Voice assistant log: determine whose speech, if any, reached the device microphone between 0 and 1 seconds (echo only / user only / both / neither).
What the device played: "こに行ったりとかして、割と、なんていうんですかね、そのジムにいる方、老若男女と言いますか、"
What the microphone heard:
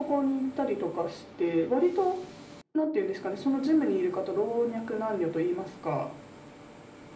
echo only